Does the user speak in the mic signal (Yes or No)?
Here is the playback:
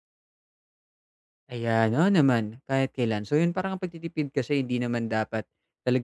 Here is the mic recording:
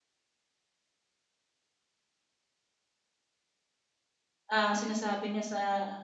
Yes